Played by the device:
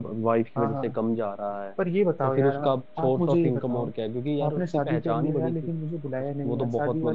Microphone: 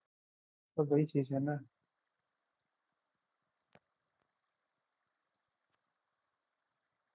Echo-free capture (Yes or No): Yes